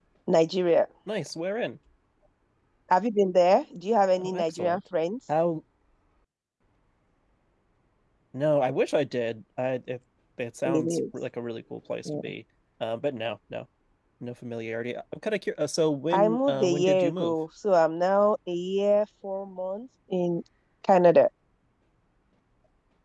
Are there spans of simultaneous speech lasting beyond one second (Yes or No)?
Yes